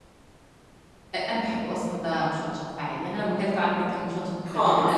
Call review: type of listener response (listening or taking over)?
taking over